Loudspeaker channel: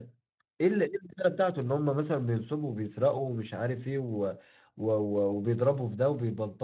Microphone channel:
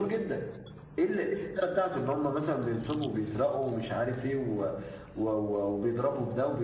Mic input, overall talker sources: echo only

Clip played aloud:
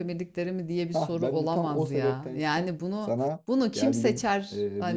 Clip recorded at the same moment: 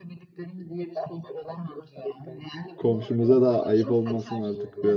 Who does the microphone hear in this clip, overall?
both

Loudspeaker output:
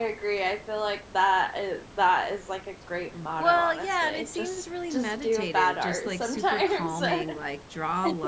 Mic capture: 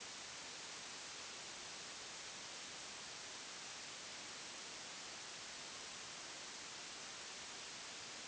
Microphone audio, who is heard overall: neither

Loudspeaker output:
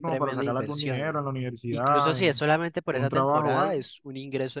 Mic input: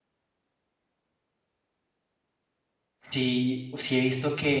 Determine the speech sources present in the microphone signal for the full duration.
user only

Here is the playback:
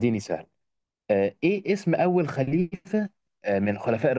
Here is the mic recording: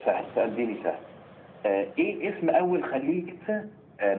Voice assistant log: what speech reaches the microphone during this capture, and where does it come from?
echo only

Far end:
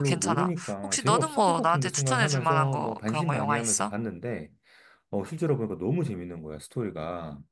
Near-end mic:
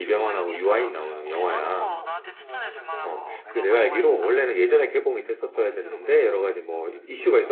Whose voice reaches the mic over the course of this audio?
both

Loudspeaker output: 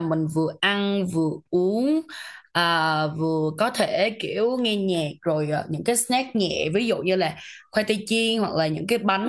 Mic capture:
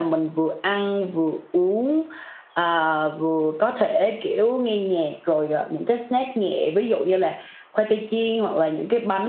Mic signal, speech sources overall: echo only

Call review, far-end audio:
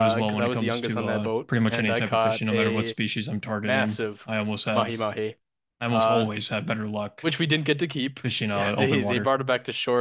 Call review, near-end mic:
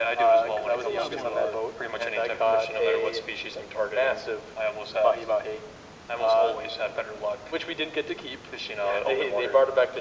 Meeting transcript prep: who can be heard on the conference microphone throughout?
both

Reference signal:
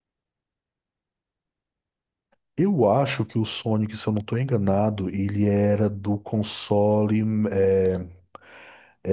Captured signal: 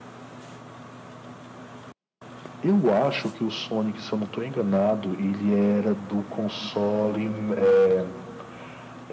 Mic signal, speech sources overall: echo only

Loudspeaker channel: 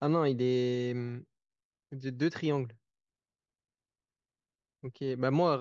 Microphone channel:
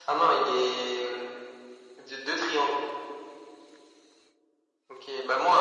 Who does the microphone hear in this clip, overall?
echo only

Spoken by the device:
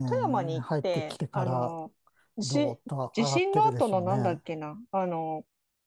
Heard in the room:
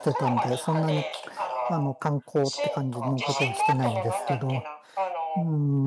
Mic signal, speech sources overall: both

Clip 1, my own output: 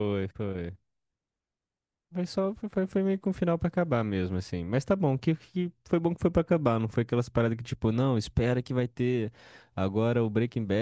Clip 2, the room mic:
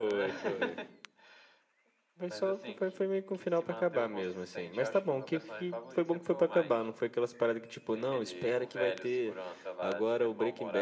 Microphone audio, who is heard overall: both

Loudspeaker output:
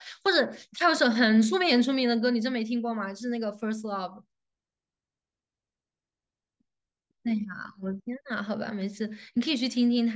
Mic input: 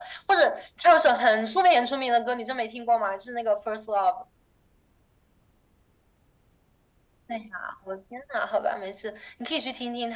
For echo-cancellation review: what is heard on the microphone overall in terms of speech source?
echo only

